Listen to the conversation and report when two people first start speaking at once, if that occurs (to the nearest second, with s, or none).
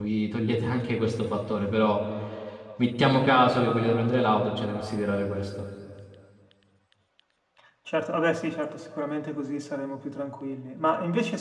none